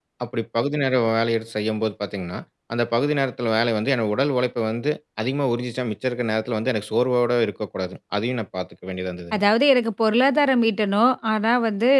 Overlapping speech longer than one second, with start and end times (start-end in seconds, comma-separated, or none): none